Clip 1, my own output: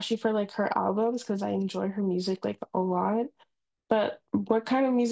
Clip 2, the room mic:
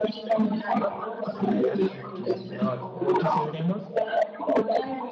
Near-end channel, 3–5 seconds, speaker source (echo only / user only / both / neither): both